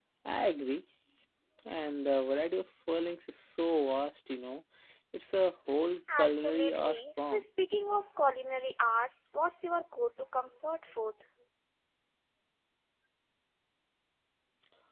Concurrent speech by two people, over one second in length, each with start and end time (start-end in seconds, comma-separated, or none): 6.1-7.4